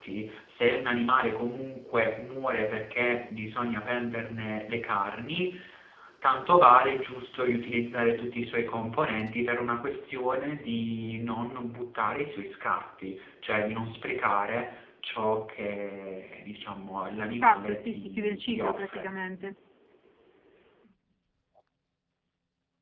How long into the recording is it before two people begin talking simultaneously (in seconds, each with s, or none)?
17.3 s